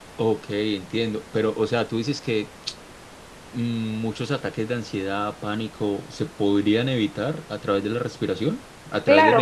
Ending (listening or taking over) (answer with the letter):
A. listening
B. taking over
B